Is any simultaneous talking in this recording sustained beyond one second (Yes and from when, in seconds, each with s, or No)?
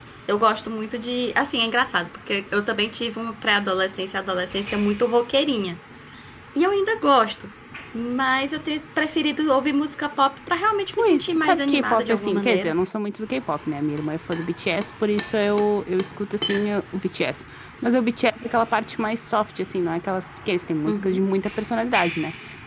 Yes, from 10.9 s